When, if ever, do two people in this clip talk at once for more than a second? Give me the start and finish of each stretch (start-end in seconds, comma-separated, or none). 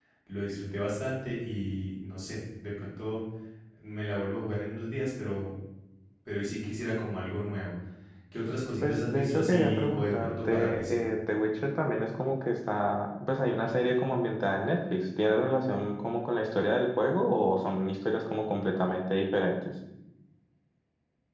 8.8-11.1